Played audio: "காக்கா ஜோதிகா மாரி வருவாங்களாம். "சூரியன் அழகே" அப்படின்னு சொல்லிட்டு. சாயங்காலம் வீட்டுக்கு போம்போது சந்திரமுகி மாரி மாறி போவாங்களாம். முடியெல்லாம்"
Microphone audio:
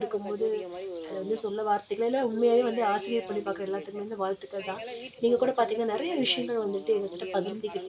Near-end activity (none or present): present